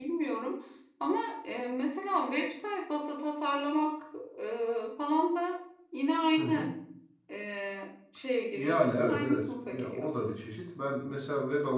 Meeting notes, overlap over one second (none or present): present